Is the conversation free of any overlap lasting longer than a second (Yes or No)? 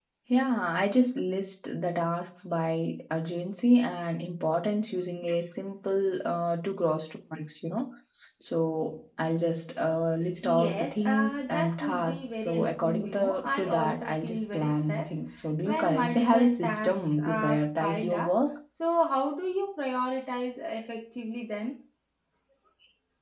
No